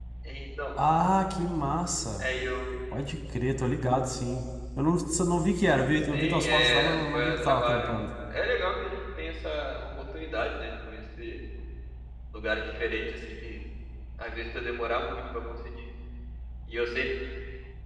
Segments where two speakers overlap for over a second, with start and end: 6.1-7.9

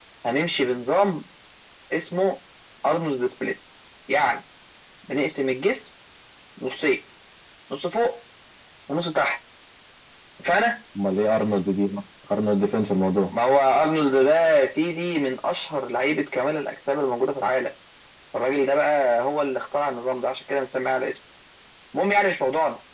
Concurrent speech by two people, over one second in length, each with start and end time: none

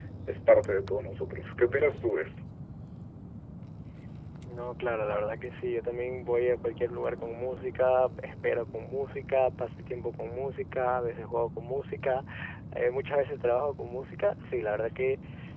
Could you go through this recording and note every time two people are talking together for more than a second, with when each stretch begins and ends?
none

